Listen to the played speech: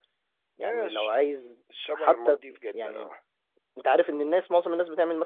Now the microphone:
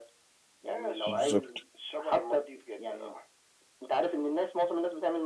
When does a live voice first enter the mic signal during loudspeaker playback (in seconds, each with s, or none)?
1.1 s